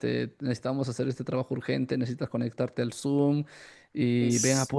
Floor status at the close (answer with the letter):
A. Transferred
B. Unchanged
B